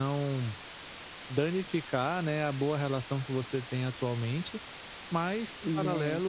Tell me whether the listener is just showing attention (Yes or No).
Yes